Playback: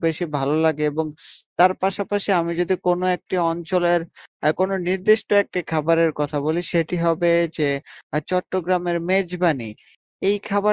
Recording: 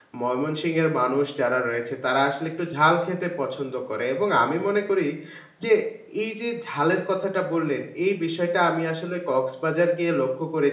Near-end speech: present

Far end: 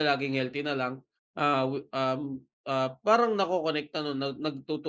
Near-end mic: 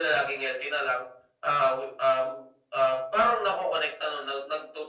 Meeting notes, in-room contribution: none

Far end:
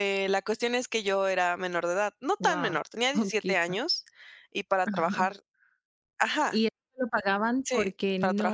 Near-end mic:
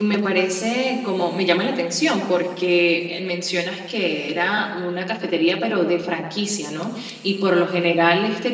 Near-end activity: present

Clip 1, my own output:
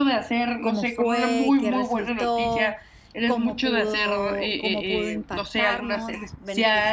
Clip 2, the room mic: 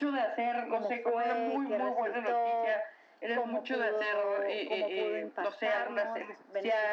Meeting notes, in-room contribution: none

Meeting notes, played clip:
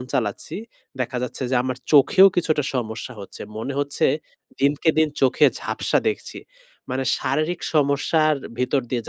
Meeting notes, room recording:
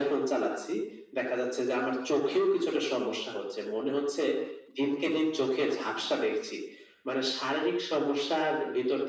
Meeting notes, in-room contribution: none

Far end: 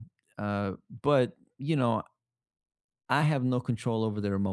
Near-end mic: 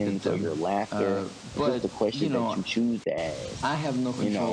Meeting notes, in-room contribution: present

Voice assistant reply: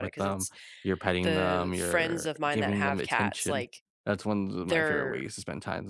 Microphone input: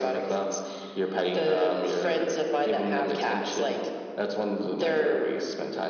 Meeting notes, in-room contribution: none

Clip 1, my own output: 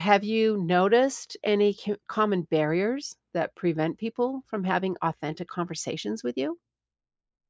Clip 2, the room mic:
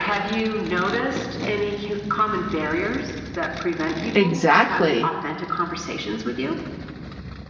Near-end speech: present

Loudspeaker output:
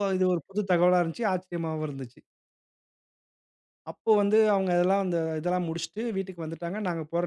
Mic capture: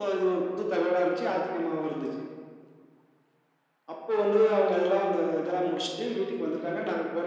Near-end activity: none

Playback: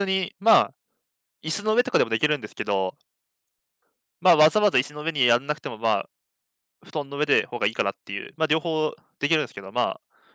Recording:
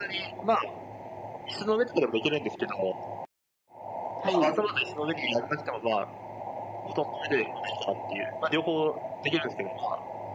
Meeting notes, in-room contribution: present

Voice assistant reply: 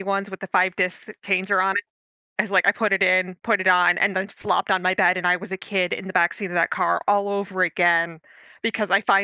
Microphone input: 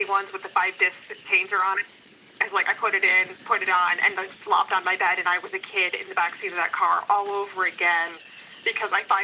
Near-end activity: none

